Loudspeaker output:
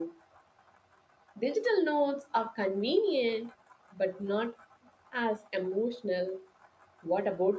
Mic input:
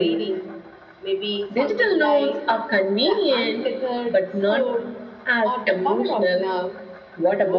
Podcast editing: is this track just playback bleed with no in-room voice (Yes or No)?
No